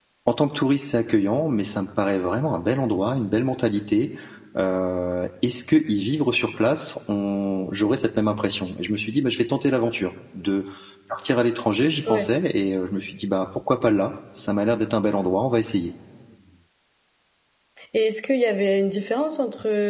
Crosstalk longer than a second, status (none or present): none